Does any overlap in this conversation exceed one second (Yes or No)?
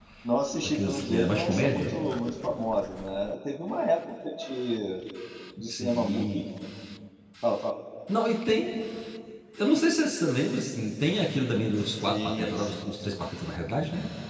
Yes